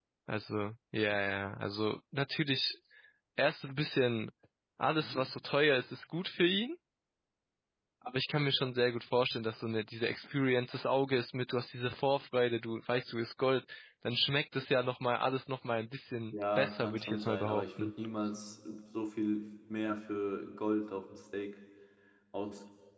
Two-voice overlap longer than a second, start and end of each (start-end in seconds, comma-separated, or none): 16.3-17.9